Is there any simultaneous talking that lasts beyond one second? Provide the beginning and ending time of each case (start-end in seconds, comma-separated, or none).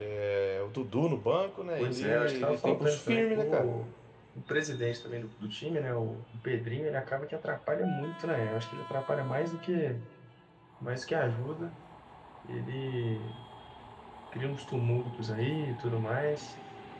1.8-3.7